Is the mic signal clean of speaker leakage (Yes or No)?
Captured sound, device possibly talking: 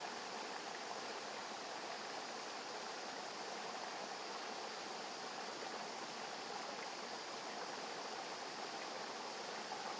Yes